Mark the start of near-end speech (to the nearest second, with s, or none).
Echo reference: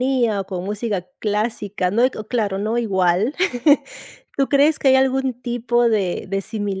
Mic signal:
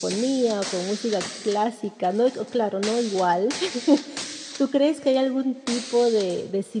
none